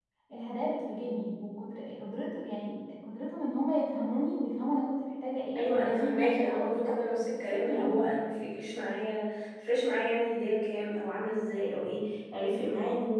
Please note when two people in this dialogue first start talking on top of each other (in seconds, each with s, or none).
5.6 s